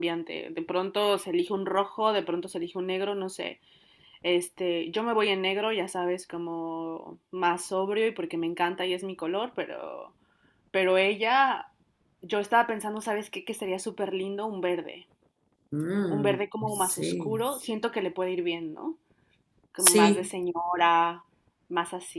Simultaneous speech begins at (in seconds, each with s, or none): 16.1 s